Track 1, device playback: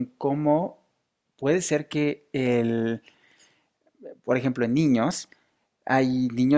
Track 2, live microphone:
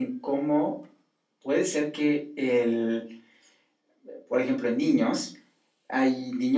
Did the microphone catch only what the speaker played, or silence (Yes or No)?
Yes